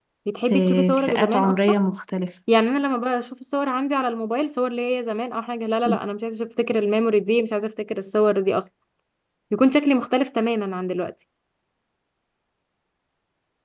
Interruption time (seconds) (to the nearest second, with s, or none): 1 s